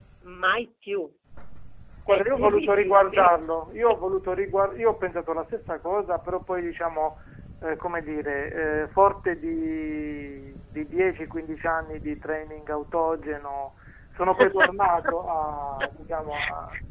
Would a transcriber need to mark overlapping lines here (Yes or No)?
Yes